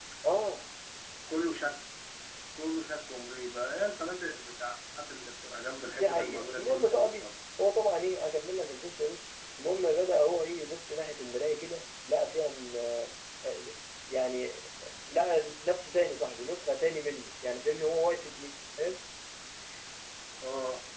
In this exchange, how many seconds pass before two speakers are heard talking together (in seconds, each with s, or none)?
5.9 s